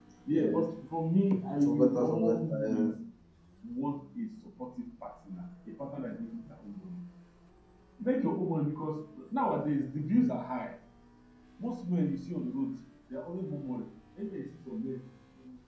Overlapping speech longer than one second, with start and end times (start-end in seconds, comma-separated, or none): 1.6-2.9